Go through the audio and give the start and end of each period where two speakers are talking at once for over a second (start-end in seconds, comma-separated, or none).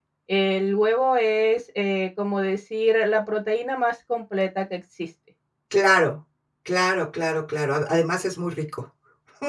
none